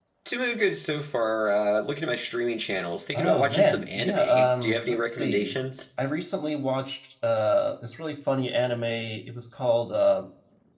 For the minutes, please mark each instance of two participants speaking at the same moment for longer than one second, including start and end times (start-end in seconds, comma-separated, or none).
3.1-5.5